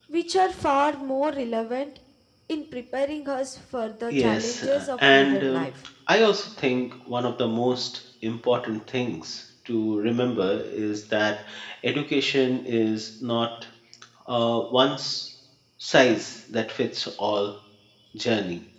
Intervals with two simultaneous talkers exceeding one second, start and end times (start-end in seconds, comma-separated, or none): 4.1-5.7